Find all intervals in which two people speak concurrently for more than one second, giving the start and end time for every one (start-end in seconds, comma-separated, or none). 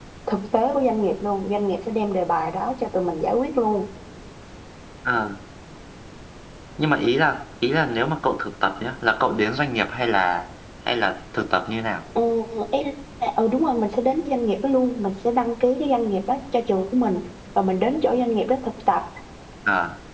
none